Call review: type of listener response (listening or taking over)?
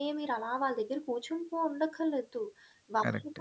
listening